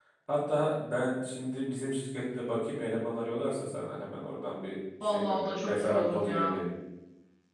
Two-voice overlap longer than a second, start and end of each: 5.0-6.6

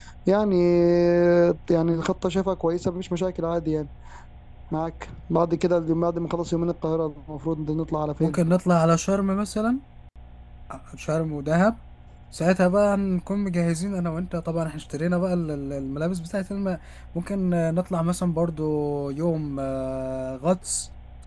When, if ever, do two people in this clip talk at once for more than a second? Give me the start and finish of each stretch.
none

